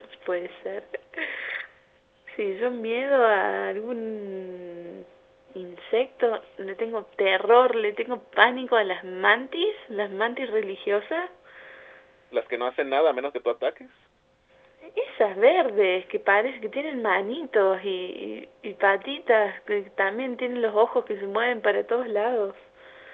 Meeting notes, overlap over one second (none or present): none